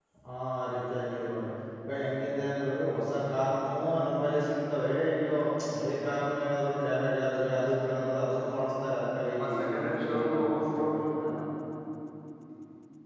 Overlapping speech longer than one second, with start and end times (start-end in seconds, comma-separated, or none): 9.4-11.3